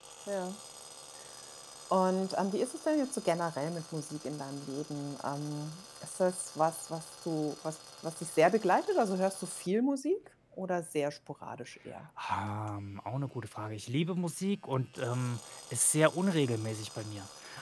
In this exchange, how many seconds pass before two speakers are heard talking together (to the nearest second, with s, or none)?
none